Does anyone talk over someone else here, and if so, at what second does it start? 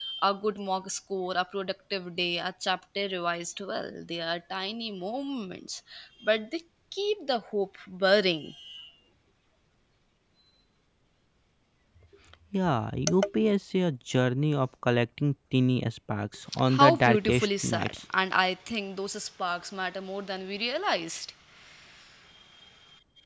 16.5 s

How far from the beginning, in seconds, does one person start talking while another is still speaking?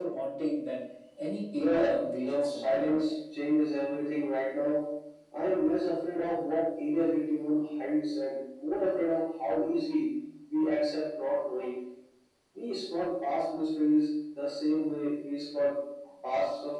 1.5 s

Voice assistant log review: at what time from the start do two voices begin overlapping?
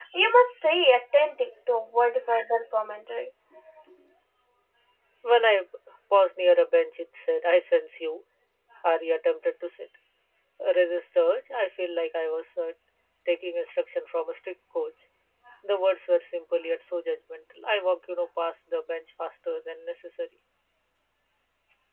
none

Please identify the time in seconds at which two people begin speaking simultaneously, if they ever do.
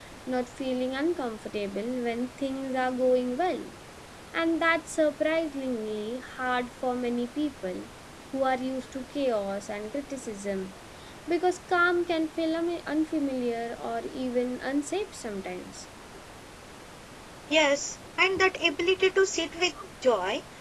none

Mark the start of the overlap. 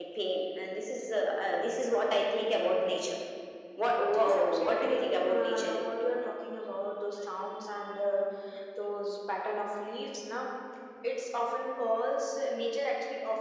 4.1 s

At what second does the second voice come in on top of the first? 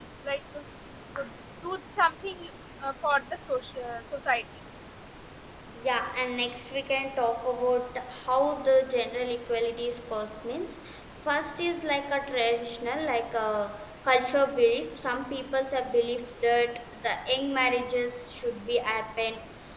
none

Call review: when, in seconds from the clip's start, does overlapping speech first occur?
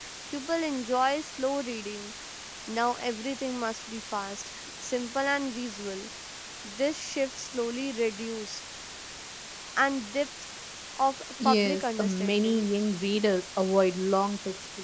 11.4 s

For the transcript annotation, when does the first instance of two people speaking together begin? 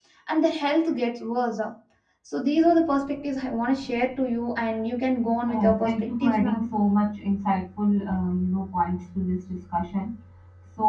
5.5 s

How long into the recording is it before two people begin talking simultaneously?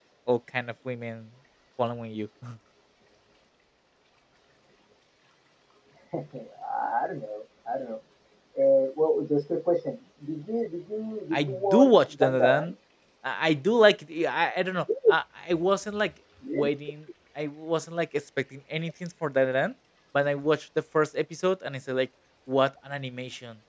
11.3 s

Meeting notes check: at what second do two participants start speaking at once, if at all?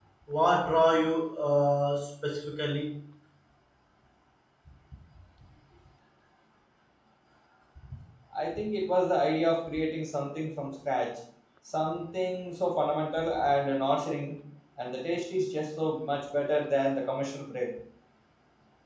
none

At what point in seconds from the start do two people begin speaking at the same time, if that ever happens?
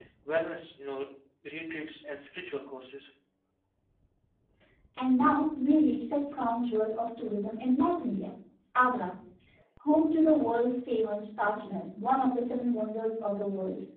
none

